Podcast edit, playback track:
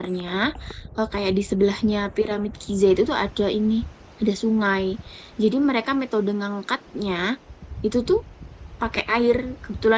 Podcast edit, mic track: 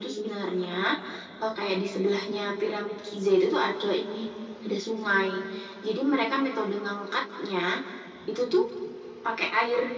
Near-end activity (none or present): none